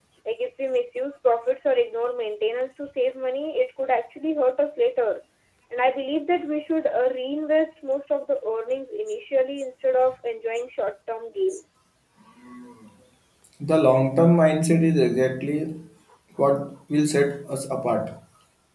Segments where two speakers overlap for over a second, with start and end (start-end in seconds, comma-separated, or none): none